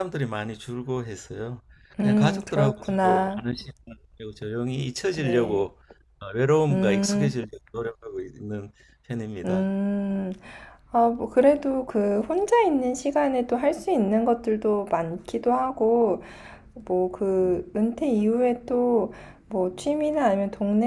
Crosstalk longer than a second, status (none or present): present